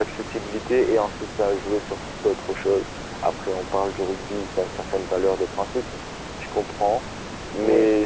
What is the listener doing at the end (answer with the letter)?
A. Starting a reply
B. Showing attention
B